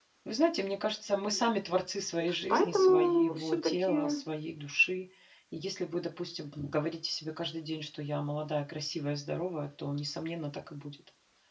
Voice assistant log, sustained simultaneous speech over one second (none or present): present